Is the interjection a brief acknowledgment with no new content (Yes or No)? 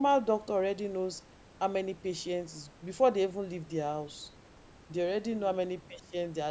Yes